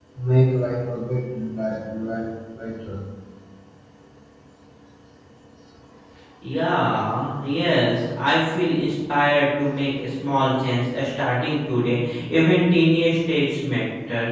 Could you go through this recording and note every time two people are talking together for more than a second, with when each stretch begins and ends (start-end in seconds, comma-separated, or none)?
none